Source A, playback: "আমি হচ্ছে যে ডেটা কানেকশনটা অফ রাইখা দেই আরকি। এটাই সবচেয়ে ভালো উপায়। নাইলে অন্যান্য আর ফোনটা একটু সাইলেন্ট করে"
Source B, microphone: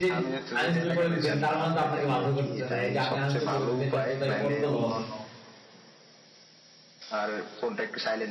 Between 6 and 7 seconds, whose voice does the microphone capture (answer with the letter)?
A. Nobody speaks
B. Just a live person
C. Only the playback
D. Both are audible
A